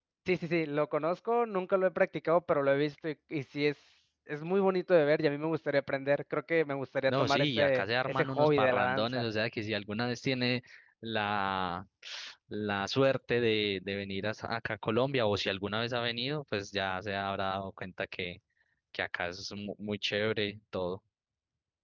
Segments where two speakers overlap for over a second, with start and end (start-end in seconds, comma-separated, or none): 7.1-9.2